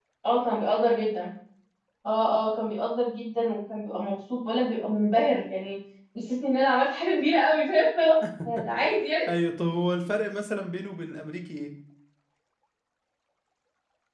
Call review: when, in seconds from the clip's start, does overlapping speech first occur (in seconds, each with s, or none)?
none